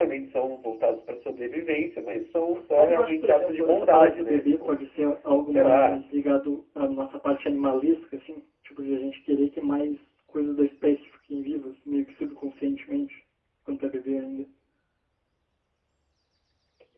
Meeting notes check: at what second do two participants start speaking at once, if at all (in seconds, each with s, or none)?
2.8 s